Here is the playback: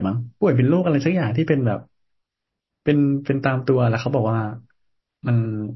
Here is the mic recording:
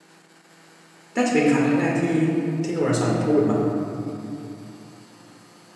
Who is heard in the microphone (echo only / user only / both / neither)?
user only